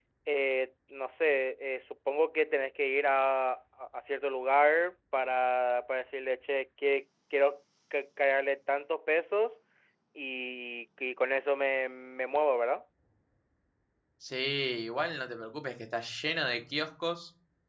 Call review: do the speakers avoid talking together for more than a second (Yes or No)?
Yes